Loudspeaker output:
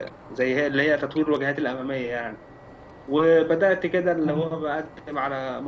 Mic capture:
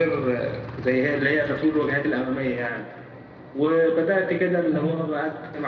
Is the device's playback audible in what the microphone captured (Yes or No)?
Yes